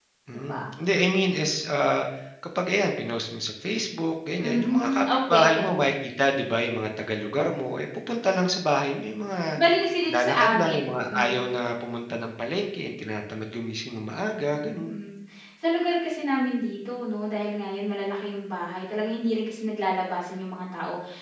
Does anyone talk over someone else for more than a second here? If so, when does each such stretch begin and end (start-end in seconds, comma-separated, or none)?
4.4-5.7, 10.1-11.4